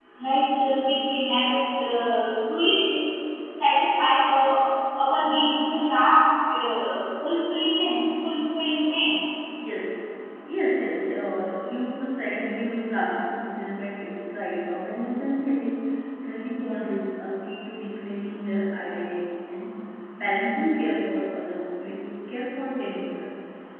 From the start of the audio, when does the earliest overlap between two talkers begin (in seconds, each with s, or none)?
none